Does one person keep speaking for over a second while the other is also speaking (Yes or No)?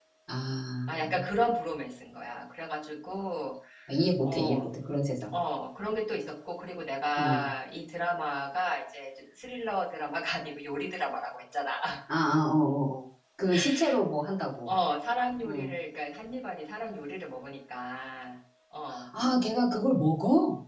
No